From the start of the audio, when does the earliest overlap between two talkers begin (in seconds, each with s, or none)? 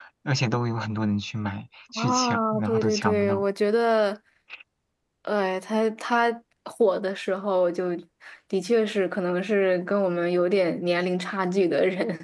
2.0 s